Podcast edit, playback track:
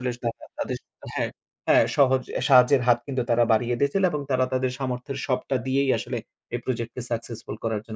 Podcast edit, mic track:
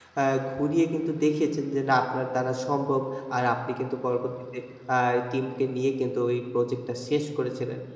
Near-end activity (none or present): present